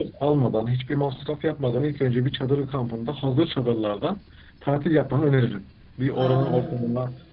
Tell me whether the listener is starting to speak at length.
No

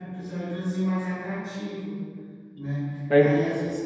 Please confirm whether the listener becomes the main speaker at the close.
No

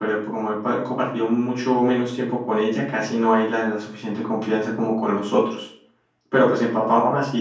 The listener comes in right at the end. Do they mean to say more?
No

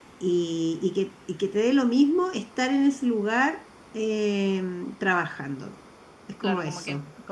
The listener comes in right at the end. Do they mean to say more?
Yes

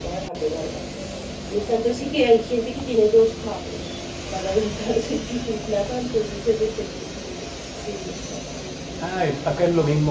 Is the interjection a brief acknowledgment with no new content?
No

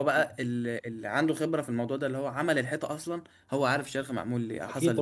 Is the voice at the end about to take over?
Yes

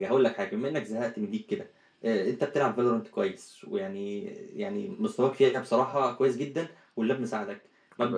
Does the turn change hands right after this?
No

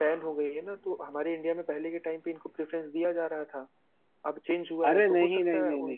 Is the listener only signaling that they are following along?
No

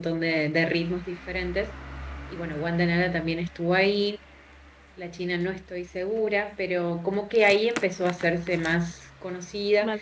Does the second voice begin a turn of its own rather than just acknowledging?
No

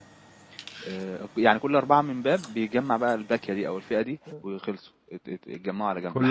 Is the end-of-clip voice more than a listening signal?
Yes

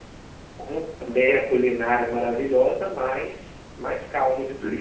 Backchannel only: No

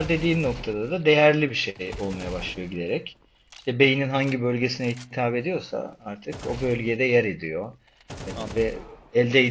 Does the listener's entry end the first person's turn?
No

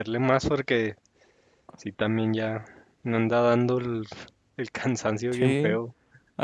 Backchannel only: No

